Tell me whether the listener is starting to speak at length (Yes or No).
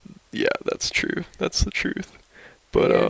Yes